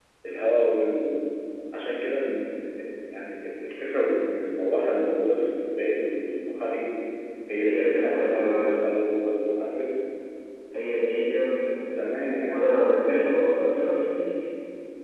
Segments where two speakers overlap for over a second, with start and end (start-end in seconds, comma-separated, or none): 7.6-8.8